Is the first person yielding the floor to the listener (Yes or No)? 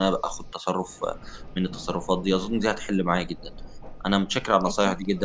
No